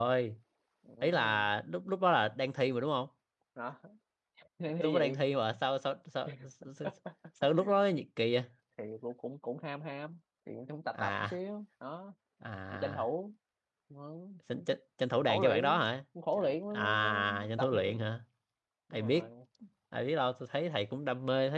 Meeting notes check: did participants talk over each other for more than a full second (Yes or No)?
Yes